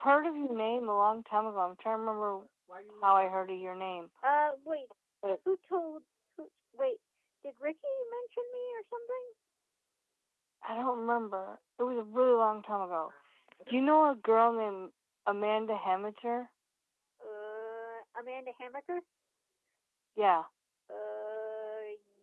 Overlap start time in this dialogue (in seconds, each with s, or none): none